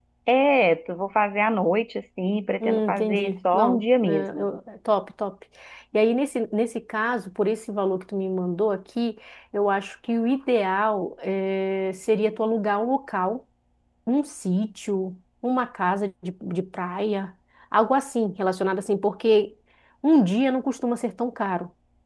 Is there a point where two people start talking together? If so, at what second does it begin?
2.6 s

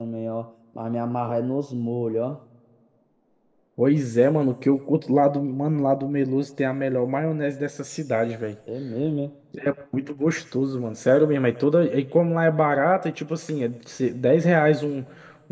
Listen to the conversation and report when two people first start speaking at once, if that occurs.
none

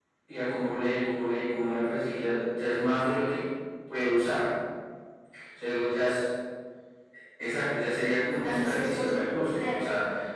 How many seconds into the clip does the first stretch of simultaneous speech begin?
8.3 s

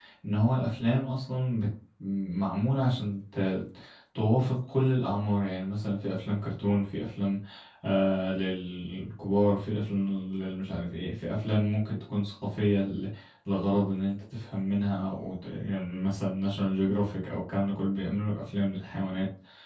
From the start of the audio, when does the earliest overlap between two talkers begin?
none

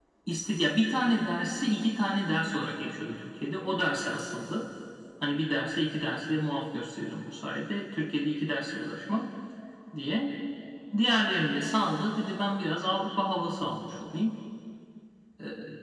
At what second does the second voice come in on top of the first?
none

